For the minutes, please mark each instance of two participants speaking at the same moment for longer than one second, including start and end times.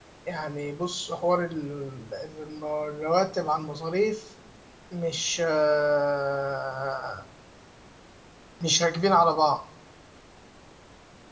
none

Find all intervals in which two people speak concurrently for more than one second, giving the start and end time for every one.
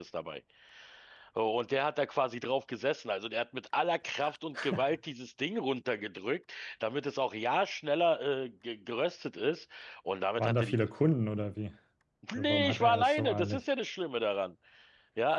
12.3-13.6

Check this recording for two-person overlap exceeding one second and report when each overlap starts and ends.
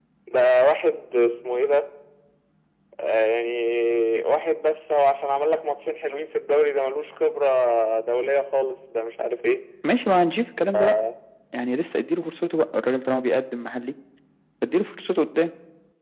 none

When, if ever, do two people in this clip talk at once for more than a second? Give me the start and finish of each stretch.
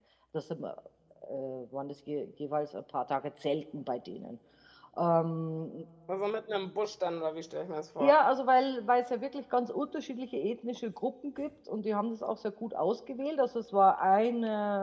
none

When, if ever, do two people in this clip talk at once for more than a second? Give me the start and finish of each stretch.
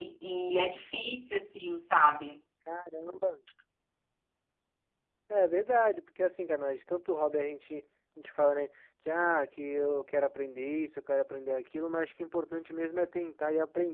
none

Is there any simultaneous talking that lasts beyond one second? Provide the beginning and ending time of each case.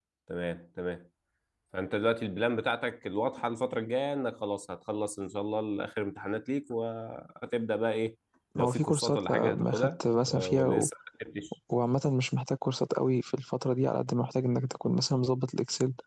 8.6-10.9

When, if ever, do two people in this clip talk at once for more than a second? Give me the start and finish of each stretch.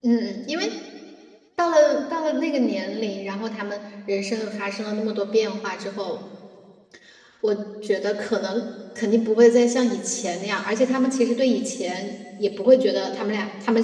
none

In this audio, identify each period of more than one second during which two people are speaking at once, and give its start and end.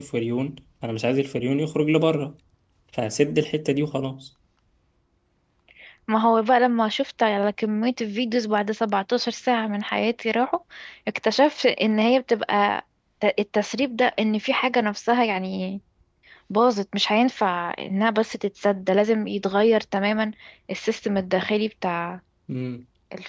none

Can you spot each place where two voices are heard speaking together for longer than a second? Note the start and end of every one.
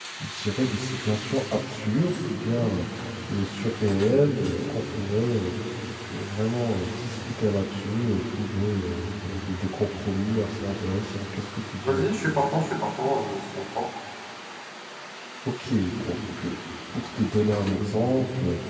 none

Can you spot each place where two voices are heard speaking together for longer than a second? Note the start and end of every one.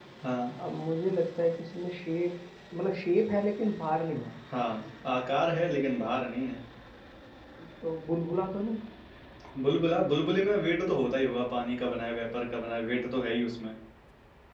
none

